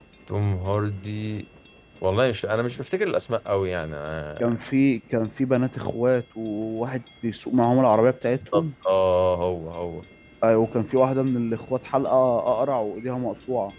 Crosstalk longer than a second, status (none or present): none